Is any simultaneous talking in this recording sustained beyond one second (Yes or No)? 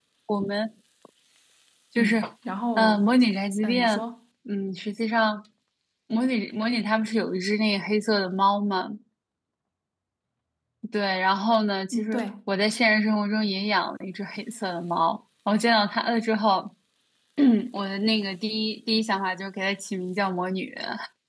No